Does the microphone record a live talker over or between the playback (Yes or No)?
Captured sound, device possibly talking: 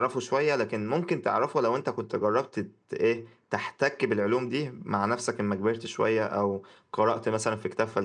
No